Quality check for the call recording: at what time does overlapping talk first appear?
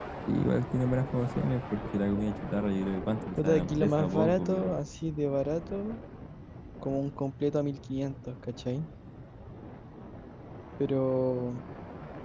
3.4 s

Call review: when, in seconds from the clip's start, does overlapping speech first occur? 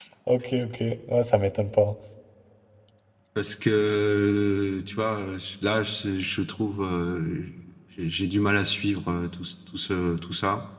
none

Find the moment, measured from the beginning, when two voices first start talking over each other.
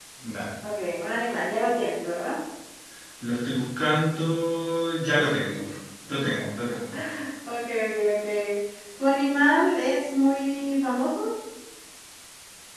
none

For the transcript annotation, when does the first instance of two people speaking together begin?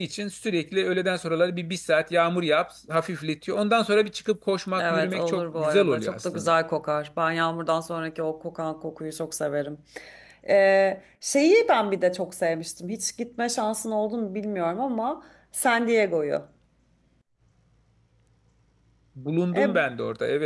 4.8 s

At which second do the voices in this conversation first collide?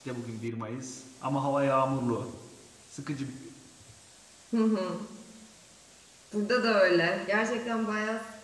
none

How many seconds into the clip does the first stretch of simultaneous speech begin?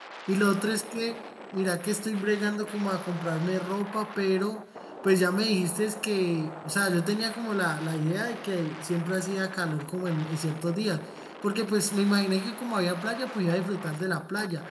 none

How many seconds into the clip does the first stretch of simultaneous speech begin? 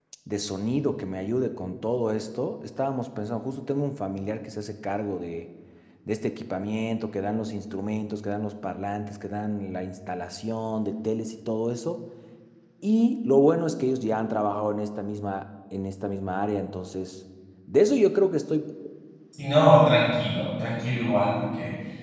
none

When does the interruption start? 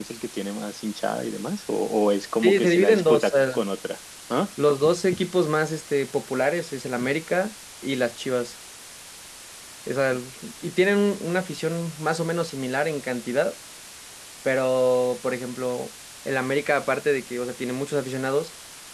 2.4 s

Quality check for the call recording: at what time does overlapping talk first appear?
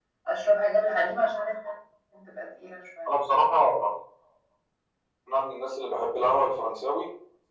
none

